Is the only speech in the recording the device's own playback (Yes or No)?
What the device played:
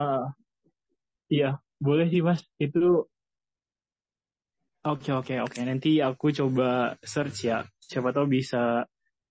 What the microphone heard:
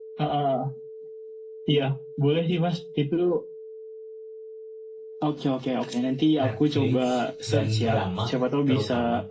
No